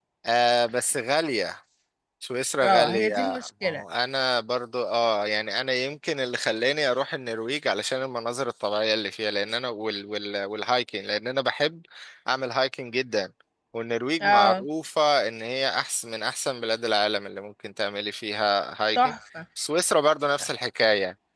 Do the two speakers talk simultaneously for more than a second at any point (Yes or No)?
Yes